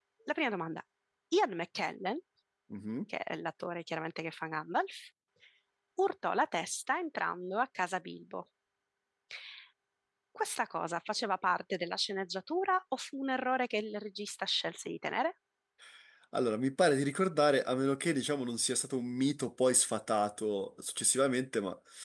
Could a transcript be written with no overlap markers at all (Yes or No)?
Yes